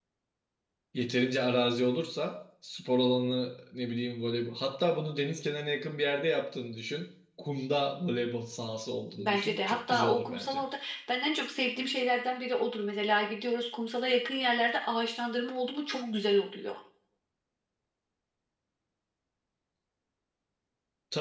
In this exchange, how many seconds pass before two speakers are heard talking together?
9.2 s

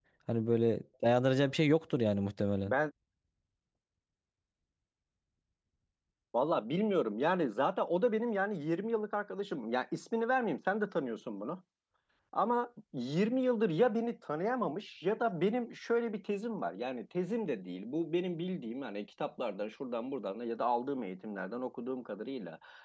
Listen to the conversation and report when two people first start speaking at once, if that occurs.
none

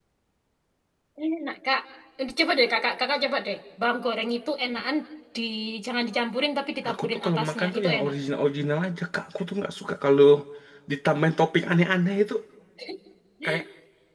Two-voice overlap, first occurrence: 6.8 s

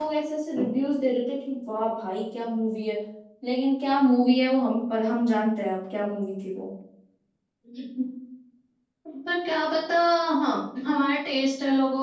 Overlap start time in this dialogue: none

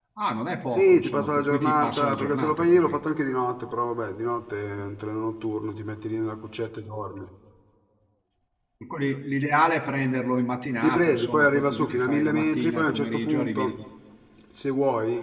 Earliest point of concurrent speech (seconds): 0.7 s

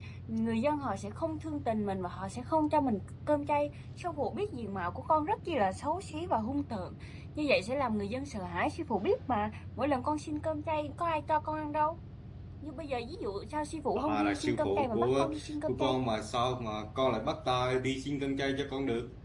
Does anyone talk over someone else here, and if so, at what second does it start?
13.9 s

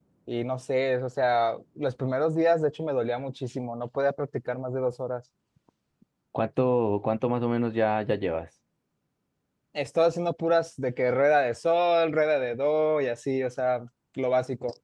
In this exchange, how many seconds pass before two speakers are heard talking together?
none

